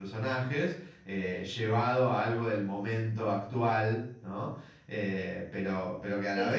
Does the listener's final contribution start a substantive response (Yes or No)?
No